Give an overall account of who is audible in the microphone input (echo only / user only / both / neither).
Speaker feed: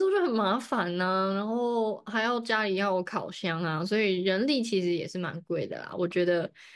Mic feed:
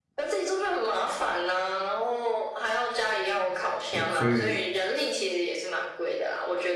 both